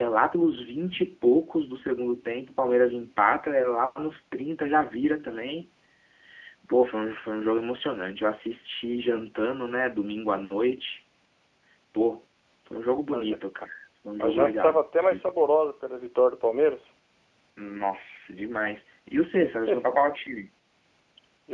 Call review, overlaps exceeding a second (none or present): none